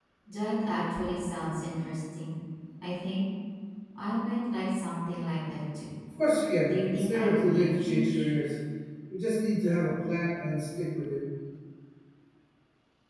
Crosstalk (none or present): present